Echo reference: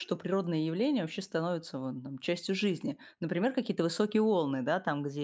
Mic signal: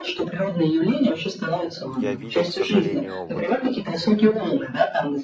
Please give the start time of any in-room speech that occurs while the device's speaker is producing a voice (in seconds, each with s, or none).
1.9 s